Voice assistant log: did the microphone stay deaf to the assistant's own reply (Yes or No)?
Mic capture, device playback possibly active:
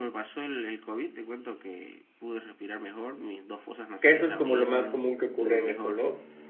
No